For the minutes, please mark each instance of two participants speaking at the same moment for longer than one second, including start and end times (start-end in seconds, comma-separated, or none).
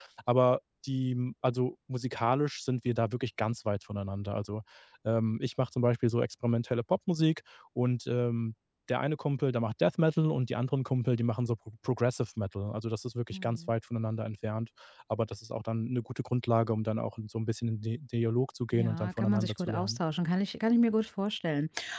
18.7-20.0